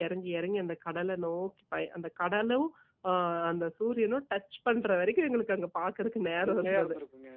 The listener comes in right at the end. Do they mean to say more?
Yes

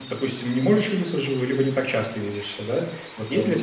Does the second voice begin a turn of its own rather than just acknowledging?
No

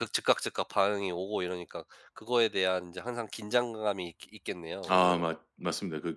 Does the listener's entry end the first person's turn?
Yes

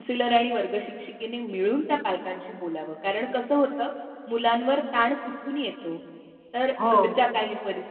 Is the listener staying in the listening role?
Yes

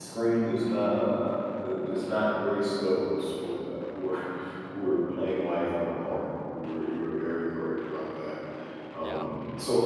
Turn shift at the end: No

